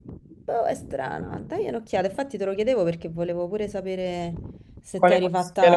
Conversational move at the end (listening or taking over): taking over